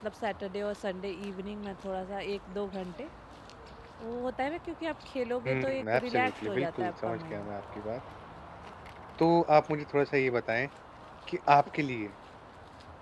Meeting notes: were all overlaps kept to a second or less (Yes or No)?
No